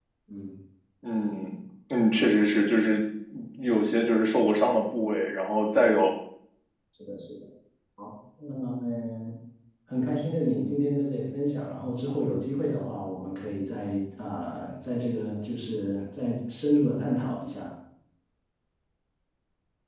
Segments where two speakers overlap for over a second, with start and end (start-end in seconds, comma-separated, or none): none